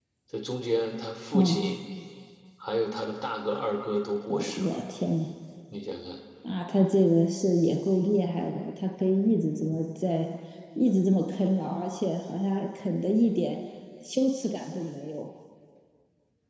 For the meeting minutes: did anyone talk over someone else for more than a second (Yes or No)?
No